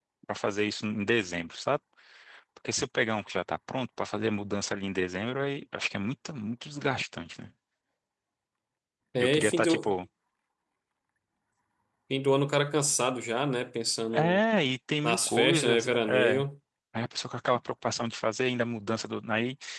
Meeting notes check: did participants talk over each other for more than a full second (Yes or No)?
Yes